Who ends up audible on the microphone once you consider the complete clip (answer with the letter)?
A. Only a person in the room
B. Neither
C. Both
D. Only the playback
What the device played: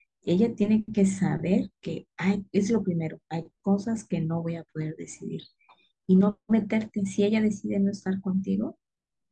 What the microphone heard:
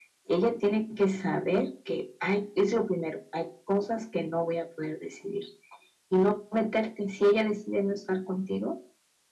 D